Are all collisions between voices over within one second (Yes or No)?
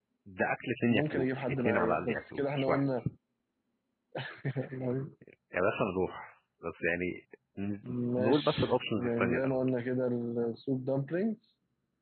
No